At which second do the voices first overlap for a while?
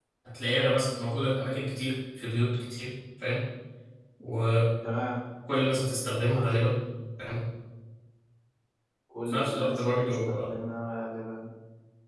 9.3 s

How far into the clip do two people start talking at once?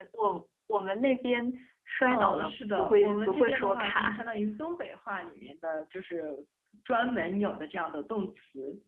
2.1 s

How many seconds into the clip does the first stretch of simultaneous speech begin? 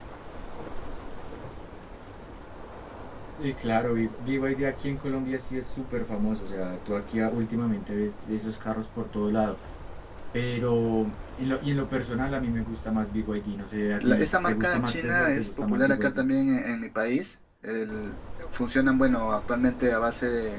14.0 s

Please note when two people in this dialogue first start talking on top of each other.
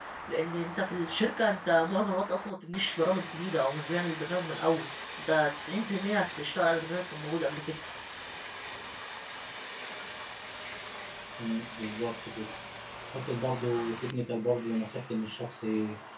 none

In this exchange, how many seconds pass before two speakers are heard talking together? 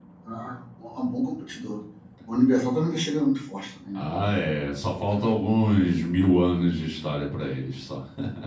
none

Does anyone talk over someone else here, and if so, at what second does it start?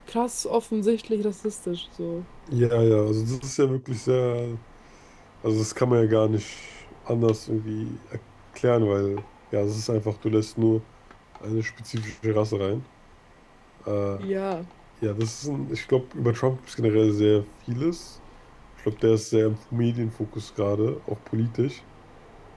none

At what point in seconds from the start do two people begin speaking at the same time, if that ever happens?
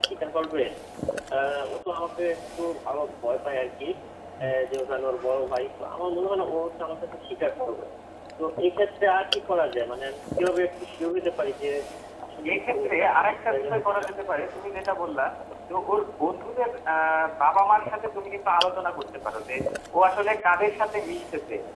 12.5 s

